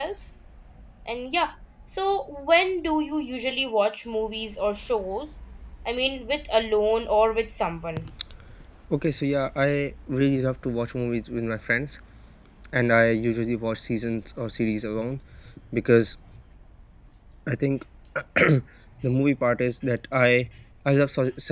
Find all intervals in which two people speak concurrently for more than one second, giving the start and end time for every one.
none

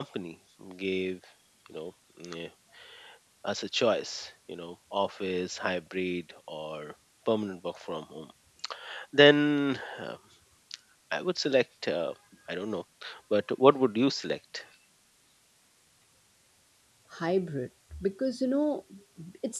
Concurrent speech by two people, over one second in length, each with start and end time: none

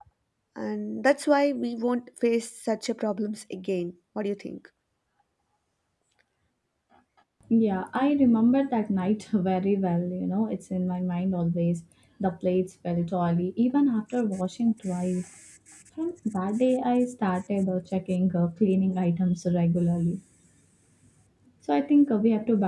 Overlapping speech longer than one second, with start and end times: none

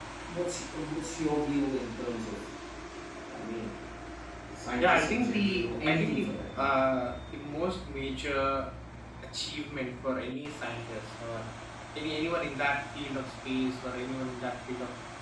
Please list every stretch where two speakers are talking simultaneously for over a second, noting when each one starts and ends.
4.8-6.8

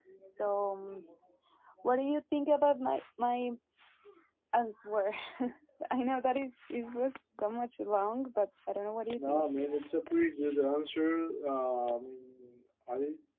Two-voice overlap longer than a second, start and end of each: none

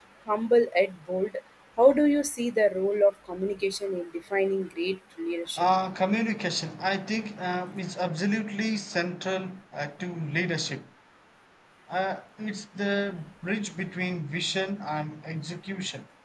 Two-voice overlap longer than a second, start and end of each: none

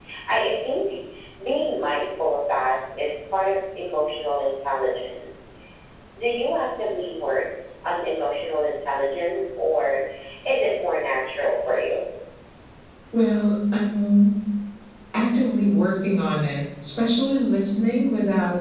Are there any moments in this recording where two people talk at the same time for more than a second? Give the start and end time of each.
none

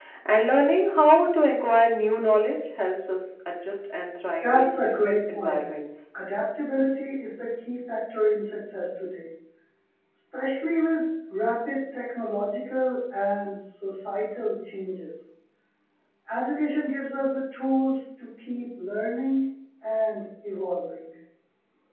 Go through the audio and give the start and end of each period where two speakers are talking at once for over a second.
4.4-5.6

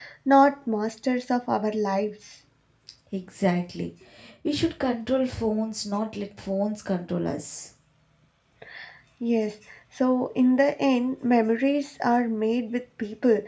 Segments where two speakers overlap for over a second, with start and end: none

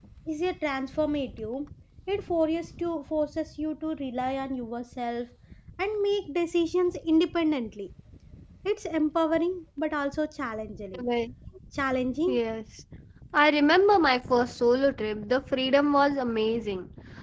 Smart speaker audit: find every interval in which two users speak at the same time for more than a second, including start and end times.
none

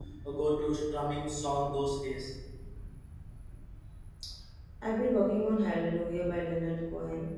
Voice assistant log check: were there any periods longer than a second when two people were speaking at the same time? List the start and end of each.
none

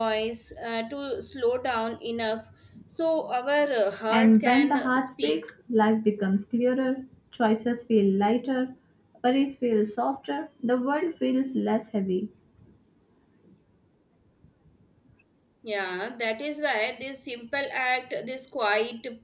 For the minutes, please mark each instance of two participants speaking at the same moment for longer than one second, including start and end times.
4.1-5.4

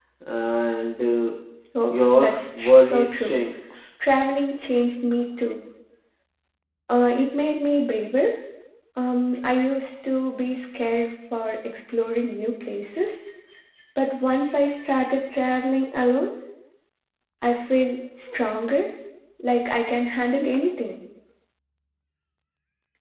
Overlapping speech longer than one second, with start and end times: 1.9-3.4

